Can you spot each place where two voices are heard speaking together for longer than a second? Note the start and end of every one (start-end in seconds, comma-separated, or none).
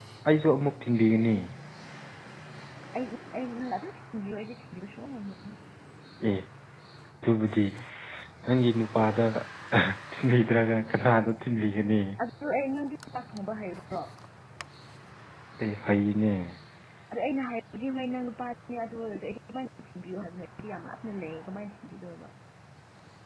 none